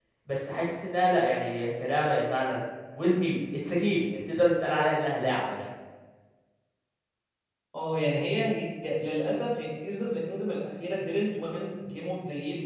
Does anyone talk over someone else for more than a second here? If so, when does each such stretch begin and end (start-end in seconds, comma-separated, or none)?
none